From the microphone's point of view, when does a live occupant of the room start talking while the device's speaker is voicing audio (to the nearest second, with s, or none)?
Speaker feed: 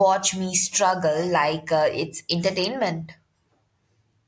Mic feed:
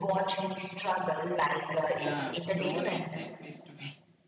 2 s